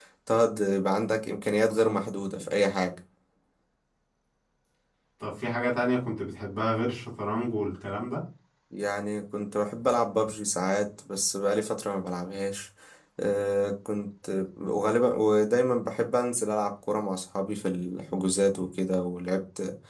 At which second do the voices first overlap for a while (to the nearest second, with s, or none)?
none